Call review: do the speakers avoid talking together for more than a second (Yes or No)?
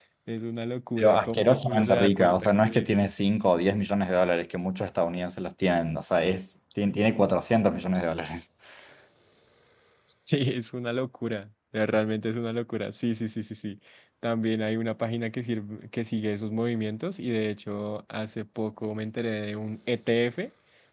No